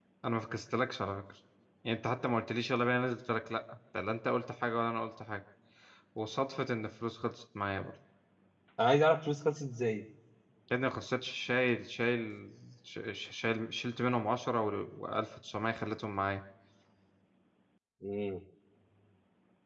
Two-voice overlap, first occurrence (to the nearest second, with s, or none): none